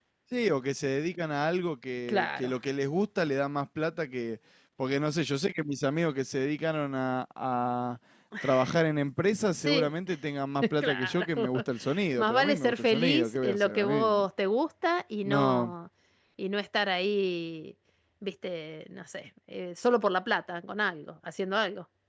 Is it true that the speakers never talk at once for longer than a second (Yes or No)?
No